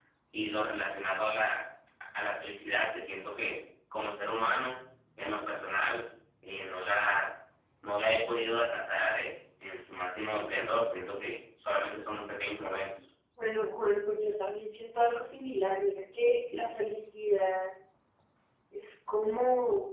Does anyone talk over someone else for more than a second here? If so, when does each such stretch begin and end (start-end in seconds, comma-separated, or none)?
none